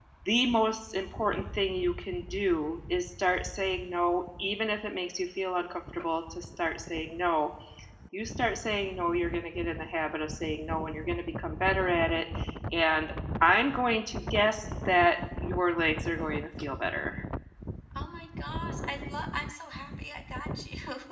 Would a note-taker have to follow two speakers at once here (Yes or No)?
No